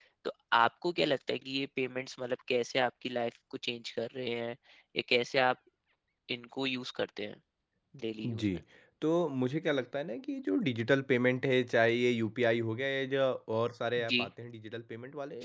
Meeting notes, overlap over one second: none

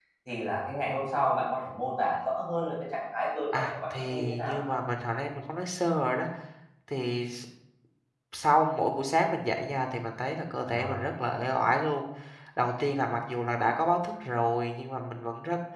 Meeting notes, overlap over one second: present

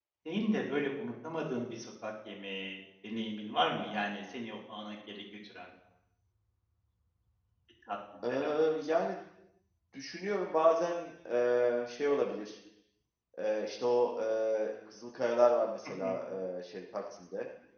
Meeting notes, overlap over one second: none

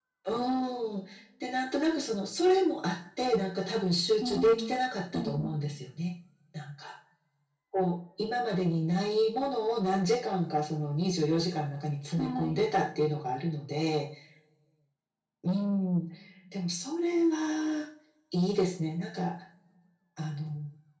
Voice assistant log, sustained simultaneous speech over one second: none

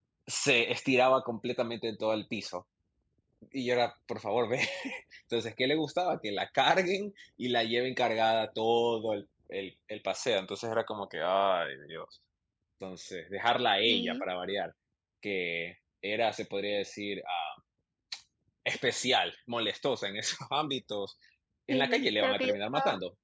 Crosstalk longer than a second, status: present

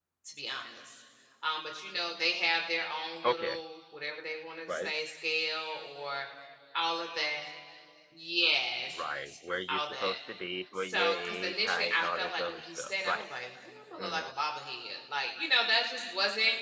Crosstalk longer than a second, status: present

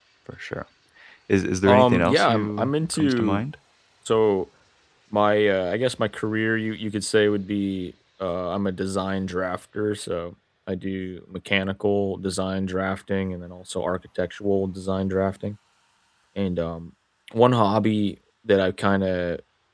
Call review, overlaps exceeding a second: present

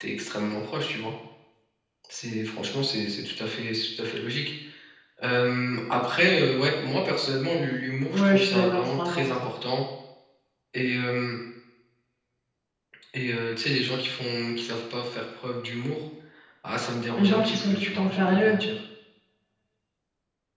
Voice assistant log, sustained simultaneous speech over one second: present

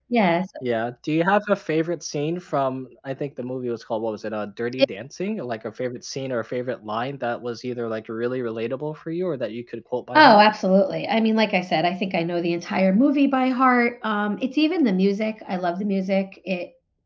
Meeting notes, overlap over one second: none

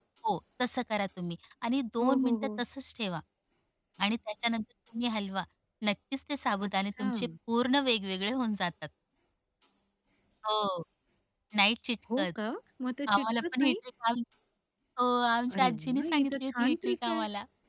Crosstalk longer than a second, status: present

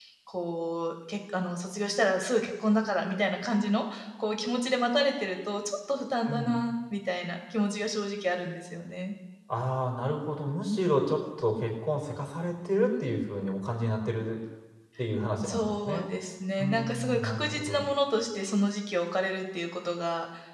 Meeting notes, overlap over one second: present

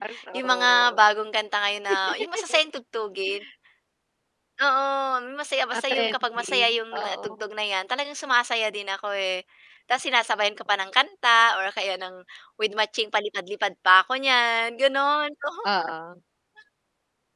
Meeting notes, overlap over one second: present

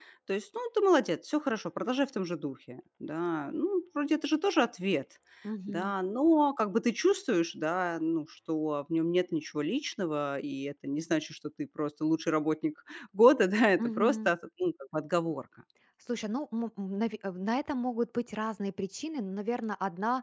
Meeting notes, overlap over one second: none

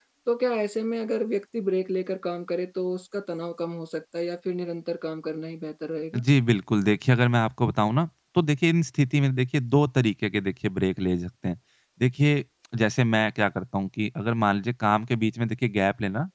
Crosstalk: none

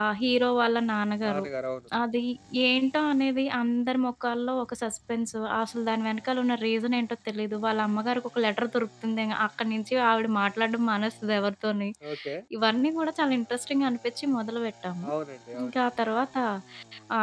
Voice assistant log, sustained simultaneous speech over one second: none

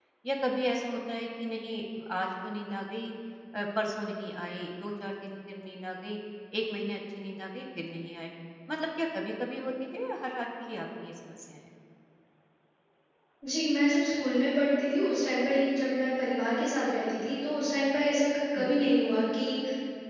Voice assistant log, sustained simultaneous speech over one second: none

